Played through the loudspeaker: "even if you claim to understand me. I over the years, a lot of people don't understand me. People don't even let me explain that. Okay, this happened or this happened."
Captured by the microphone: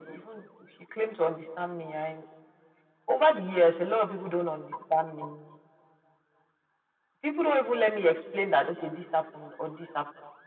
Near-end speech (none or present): none